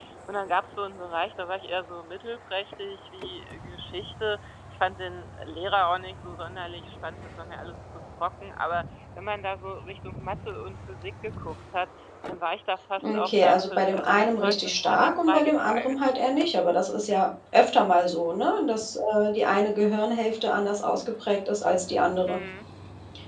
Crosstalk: present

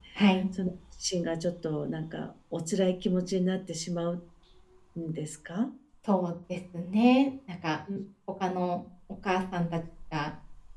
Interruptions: none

